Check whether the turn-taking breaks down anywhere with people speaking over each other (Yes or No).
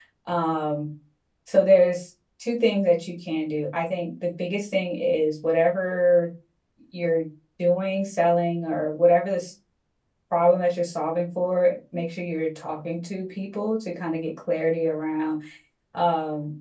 No